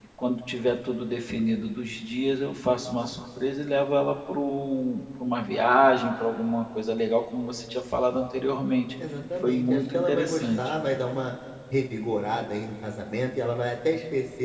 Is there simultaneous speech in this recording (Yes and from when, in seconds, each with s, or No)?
Yes, from 9.4 s